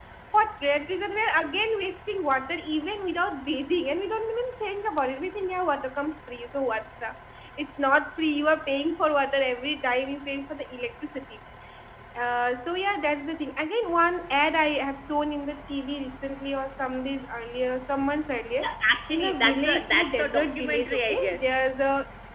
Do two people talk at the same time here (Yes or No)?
Yes